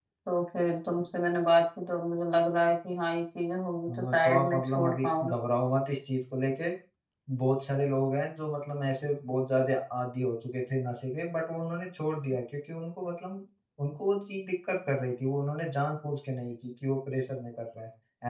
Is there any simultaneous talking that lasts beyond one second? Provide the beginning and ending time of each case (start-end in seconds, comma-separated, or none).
4.1-5.3